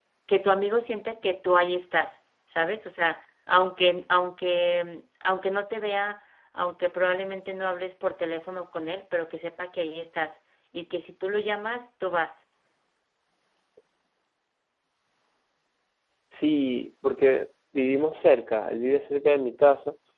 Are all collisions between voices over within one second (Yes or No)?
Yes